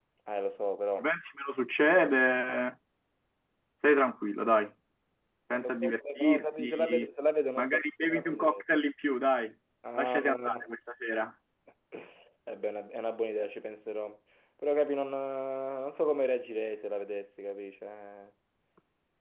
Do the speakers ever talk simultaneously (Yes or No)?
Yes